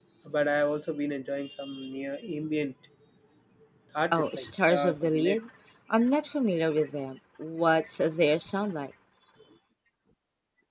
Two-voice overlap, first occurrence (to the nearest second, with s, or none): 4 s